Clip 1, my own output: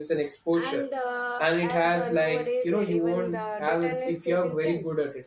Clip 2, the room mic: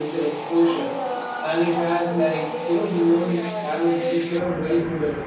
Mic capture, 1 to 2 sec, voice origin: echo only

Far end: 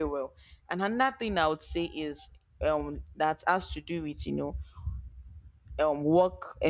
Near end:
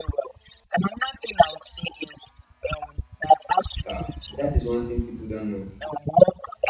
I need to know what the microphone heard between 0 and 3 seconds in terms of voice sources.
echo only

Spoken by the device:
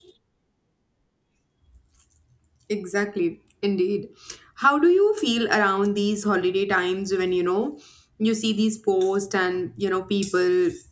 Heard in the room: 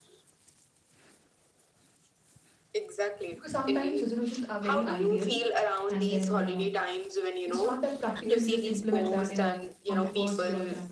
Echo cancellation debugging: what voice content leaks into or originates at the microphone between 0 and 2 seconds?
neither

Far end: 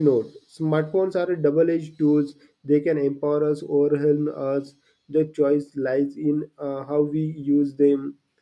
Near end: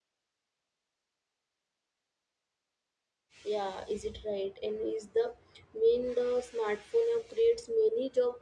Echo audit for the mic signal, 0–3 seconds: neither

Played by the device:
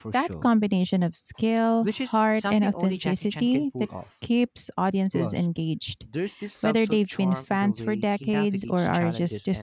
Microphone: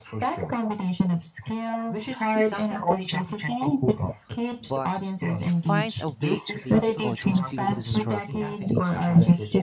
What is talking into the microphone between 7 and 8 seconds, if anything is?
both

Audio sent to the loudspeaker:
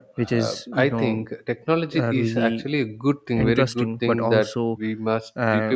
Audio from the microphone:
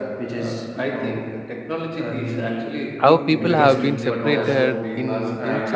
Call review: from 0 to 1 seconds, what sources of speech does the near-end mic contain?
echo only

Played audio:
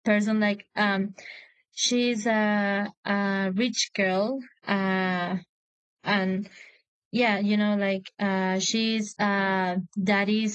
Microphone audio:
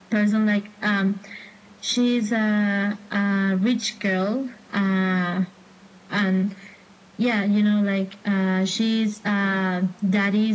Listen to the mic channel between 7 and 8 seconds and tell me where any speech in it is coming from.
echo only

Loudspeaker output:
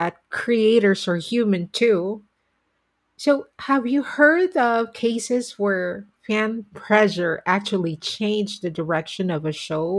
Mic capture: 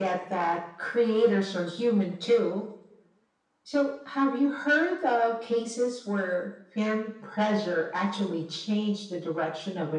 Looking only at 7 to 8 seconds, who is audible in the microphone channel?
echo only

